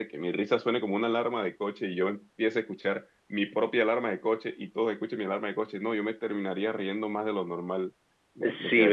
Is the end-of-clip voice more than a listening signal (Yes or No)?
Yes